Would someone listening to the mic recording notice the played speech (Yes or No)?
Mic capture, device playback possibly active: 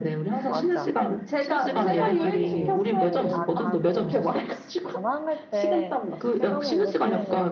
Yes